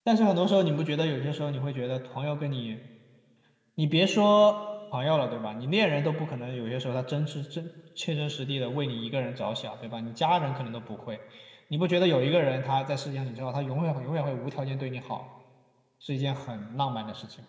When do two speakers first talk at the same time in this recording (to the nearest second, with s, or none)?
none